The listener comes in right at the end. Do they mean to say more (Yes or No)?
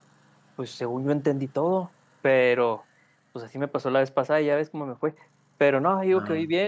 No